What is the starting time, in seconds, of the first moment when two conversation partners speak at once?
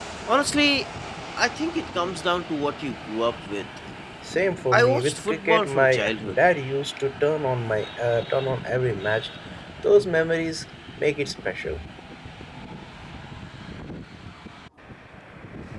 4.7 s

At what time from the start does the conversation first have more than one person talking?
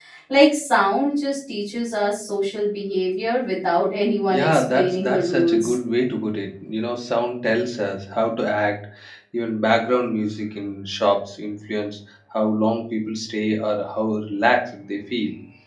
4.3 s

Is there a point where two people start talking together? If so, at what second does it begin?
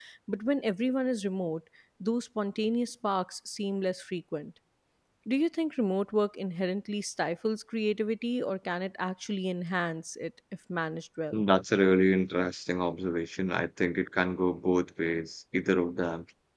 none

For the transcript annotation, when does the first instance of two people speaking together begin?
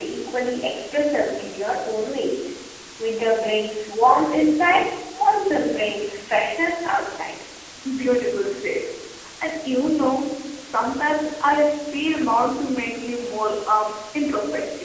none

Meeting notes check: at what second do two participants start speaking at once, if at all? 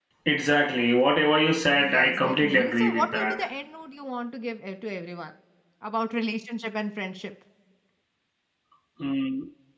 1.8 s

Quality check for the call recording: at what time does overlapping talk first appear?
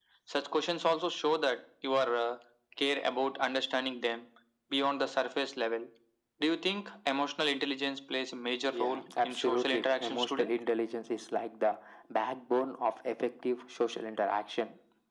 8.6 s

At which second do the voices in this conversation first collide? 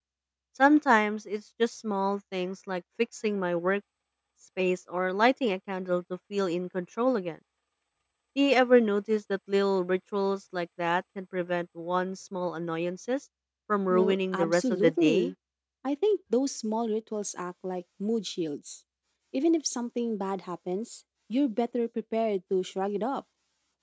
13.9 s

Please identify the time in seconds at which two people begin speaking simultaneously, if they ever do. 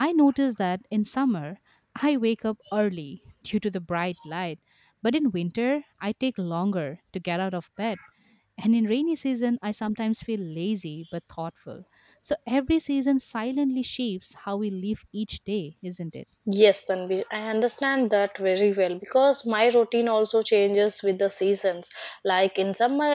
none

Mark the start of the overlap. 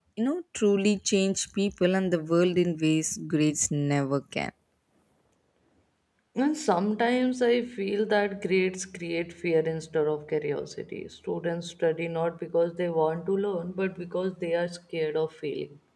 none

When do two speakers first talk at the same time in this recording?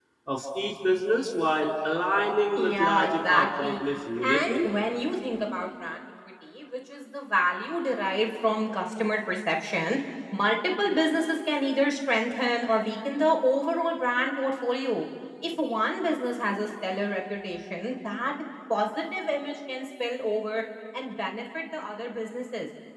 2.5 s

